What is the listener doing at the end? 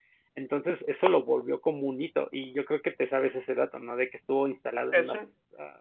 listening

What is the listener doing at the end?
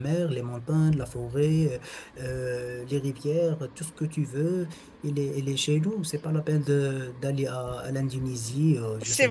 taking over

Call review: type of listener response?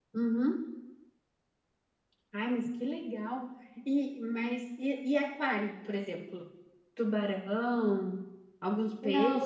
taking over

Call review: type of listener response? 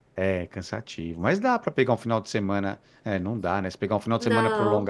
listening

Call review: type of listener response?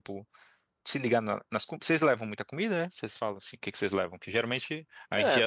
listening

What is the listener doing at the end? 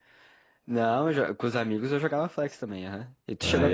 taking over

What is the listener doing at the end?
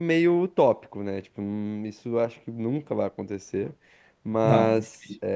listening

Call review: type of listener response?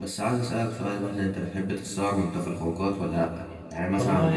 listening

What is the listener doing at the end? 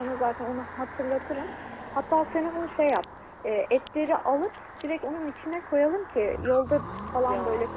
listening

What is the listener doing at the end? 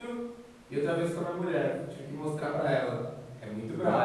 taking over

